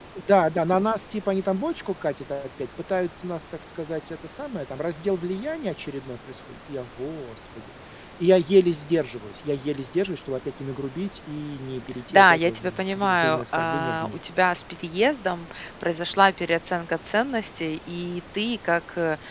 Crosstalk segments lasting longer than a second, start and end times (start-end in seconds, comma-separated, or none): 12.1-14.2